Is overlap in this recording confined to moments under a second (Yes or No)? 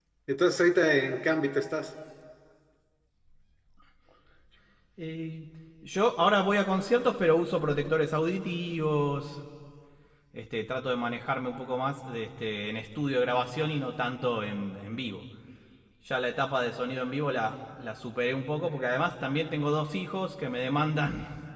Yes